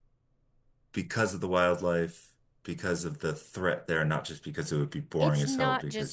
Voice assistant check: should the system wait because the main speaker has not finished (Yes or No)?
No